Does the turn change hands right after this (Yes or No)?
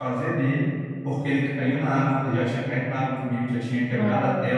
No